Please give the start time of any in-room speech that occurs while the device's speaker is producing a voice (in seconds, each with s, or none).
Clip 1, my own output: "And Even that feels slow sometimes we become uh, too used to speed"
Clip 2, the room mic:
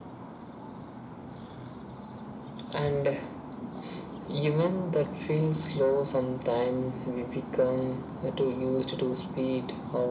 none